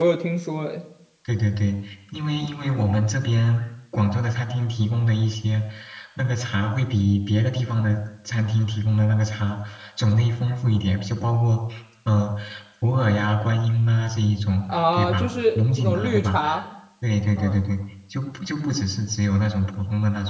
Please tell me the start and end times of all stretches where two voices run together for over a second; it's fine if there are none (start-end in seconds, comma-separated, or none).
14.9-16.4